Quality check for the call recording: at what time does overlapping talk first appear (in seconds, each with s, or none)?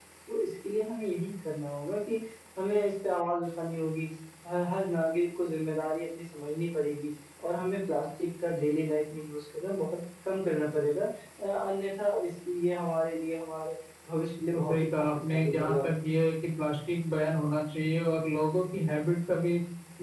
14.5 s